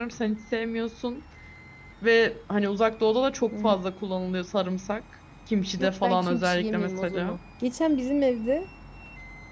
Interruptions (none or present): present